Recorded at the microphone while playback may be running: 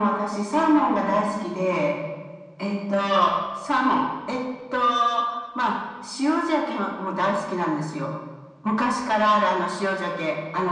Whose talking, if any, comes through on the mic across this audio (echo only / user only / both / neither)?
echo only